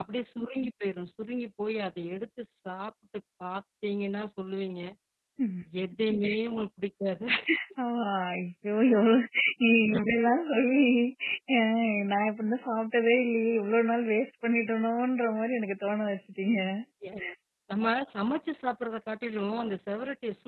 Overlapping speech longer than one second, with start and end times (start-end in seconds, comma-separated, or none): none